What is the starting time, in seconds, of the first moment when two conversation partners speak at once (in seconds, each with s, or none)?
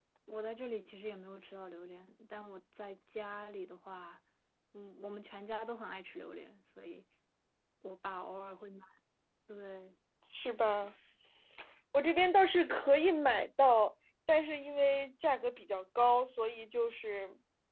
none